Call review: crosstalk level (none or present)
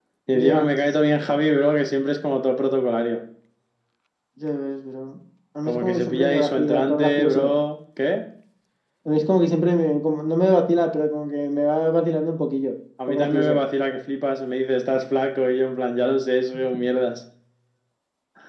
present